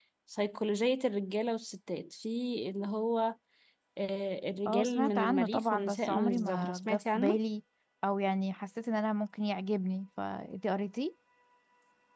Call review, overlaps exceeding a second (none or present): present